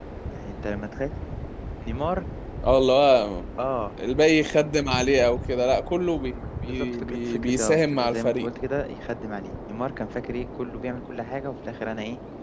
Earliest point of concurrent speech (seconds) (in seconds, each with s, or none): 6.7 s